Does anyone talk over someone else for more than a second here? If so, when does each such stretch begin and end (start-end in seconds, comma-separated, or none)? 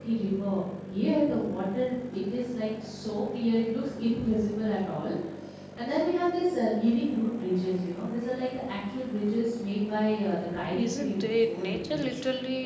10.7-12.0